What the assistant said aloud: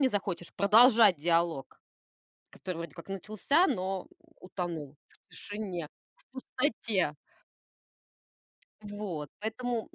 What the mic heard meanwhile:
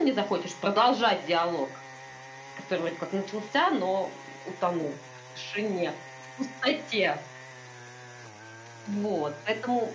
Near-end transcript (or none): none